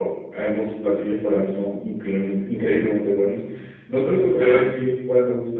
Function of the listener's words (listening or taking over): listening